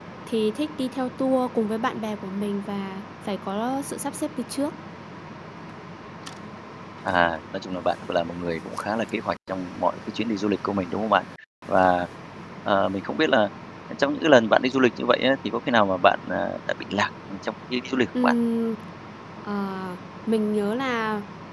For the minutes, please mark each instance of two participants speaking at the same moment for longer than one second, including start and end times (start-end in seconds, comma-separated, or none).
none